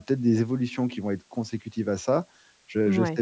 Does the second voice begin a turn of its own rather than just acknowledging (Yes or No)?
No